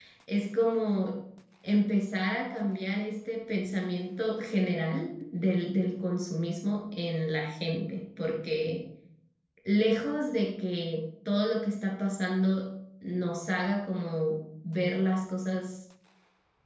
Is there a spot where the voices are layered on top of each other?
No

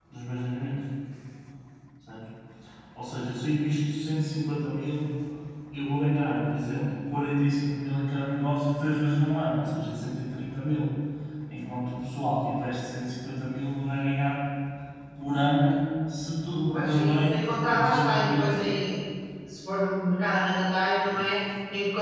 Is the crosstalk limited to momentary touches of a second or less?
No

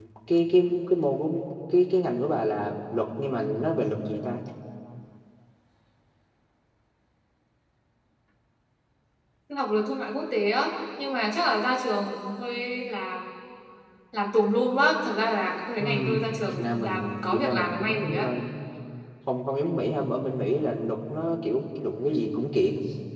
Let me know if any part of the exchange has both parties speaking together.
Yes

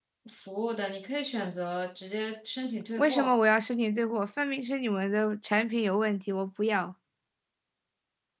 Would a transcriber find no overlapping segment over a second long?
Yes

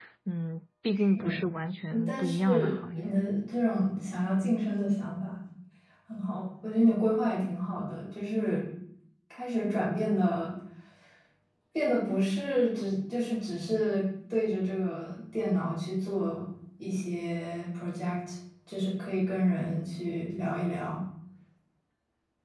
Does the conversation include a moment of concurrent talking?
Yes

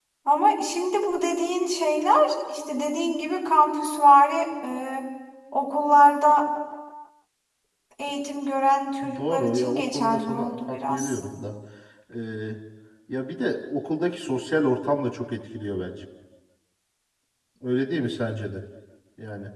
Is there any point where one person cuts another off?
Yes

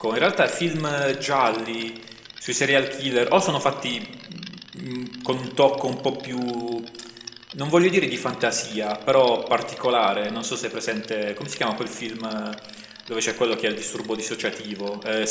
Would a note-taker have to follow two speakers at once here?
No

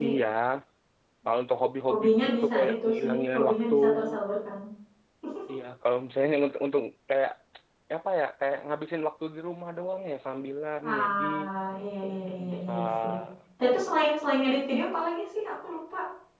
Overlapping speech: Yes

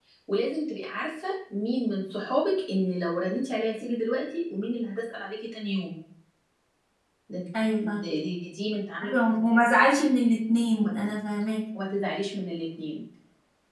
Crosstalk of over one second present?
No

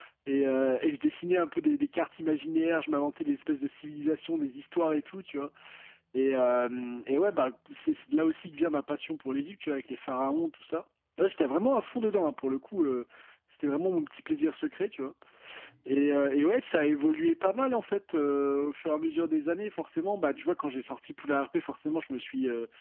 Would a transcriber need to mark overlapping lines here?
No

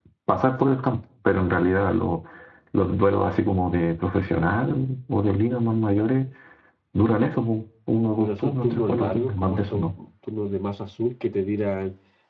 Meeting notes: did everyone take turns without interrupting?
No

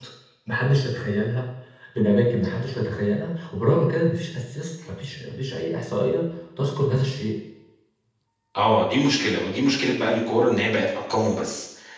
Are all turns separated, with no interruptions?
Yes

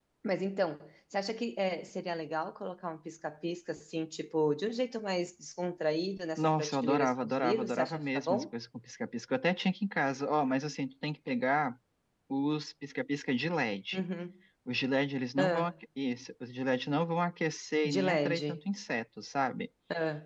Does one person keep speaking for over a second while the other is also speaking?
Yes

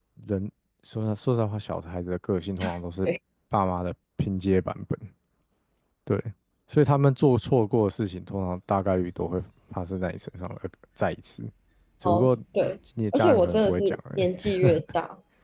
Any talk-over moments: Yes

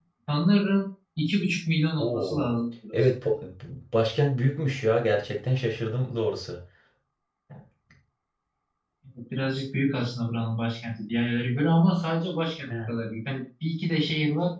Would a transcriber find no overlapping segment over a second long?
Yes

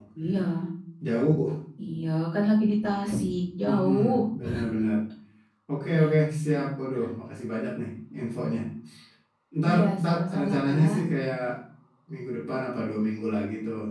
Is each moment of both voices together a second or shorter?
No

